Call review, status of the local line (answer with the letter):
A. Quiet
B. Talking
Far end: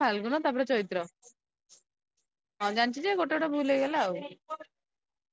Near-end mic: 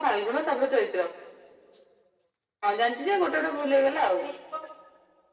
A